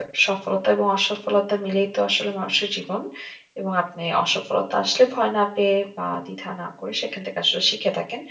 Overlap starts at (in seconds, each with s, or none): none